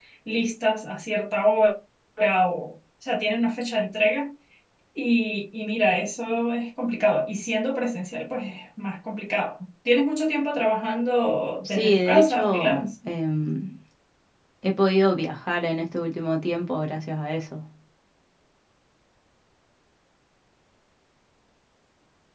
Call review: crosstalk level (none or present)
present